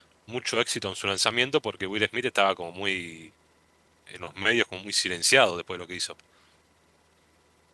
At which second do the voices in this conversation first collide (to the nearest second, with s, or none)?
none